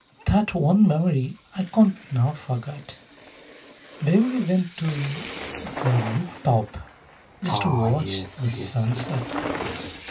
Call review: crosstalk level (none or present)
present